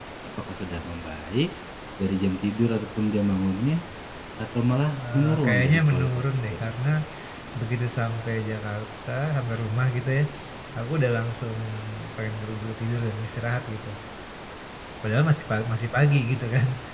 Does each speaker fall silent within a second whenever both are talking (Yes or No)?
No